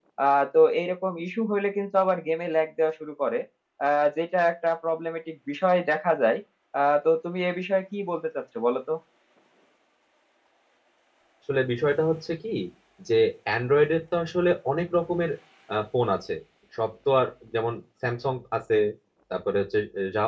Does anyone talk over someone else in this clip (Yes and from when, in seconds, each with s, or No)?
No